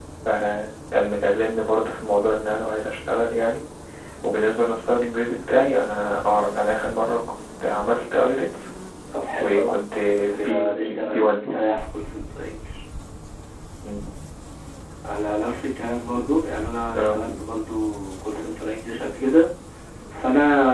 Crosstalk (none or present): present